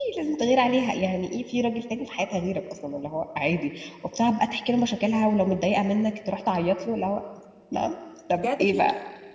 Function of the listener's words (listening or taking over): taking over